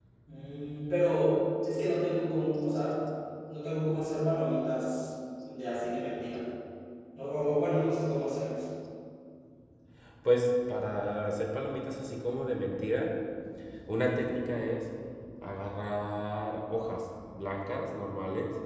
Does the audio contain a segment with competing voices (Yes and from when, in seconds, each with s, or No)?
No